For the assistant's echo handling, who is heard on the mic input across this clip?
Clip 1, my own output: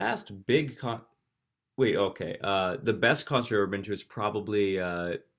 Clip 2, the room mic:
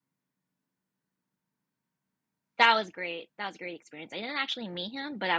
user only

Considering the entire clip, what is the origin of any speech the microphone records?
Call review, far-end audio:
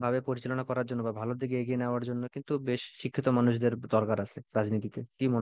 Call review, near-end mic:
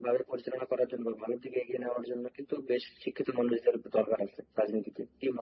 echo only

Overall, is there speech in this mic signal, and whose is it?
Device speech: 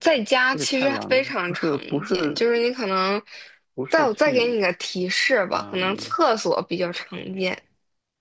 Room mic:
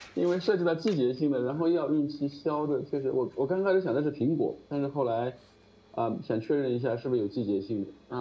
user only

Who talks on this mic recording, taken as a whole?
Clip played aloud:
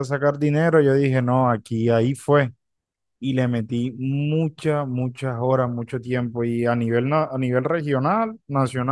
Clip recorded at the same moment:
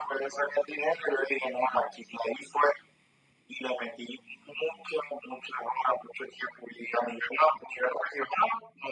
echo only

